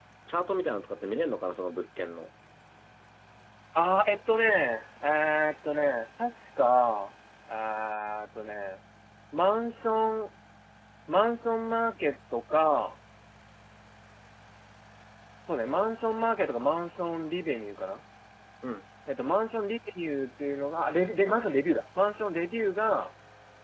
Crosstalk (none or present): none